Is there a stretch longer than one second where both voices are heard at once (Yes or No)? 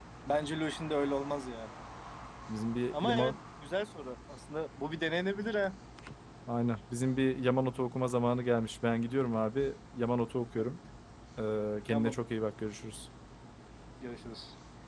No